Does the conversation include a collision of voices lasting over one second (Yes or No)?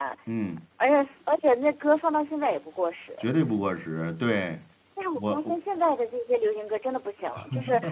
No